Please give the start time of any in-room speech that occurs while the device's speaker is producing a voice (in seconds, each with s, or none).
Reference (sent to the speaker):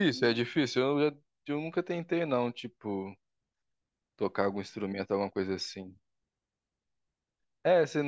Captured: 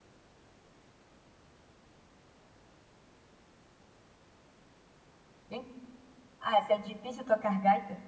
5.5 s